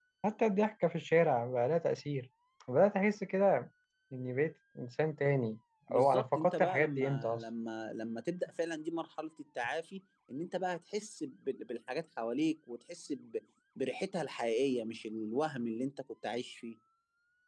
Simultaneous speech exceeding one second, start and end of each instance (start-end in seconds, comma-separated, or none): 5.9-7.4